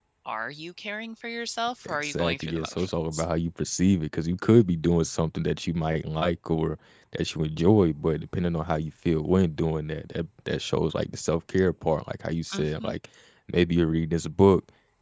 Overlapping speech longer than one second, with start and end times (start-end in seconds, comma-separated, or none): 1.9-3.2